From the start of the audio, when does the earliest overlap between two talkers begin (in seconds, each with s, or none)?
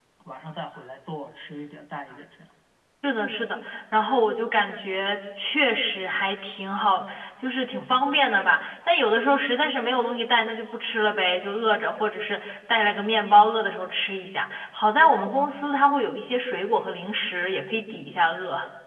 none